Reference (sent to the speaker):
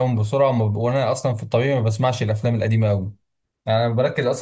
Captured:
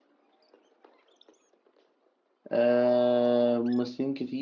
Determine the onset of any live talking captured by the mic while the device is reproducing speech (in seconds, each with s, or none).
2.5 s